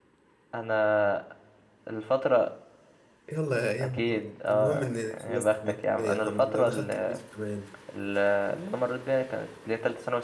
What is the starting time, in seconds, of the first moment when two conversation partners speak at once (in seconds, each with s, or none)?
3.8 s